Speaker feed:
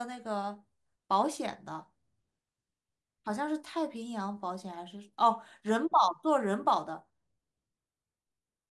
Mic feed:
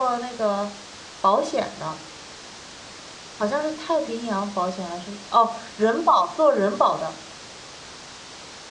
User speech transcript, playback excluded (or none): none